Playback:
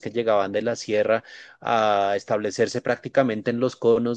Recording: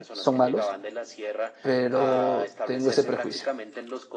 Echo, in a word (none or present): present